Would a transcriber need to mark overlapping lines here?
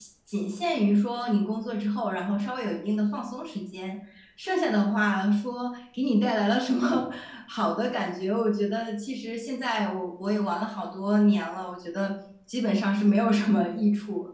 No

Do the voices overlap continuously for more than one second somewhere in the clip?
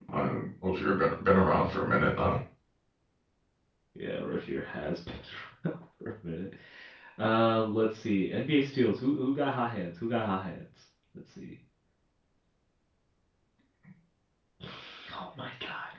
No

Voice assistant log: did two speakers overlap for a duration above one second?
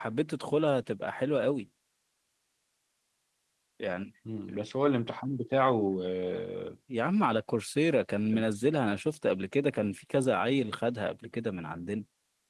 No

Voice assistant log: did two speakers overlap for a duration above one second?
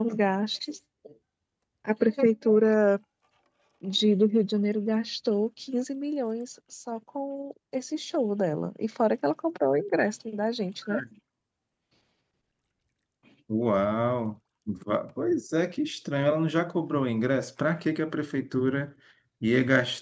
No

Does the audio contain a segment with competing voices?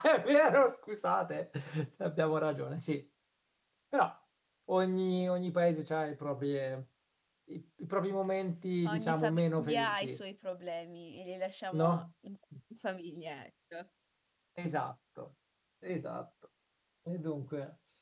Yes, from 8.8 s

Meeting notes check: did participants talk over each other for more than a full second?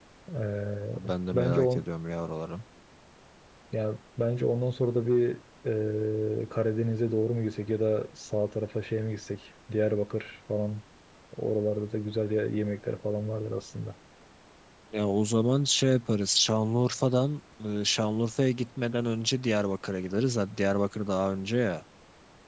No

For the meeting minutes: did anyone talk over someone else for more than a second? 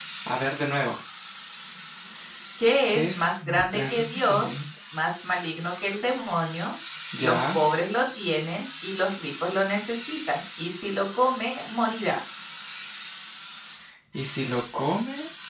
Yes, from 2.9 s

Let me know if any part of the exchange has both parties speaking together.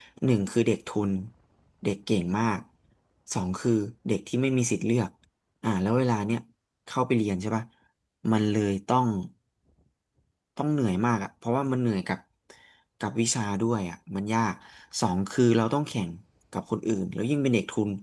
No

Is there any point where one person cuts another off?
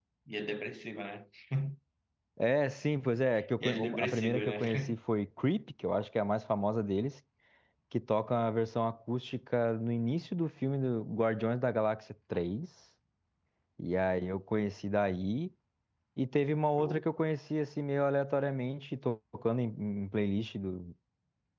Yes, from 3.6 s

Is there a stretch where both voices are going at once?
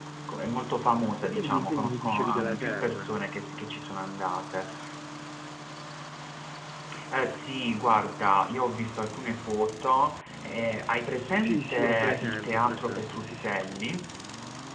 Yes, from 1.2 s

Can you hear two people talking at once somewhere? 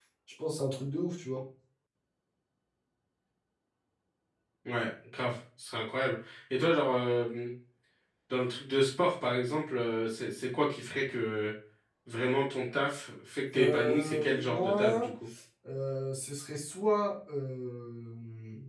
Yes, from 13.5 s

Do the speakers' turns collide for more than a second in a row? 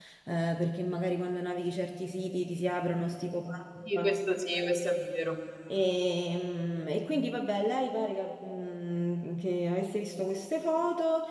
No

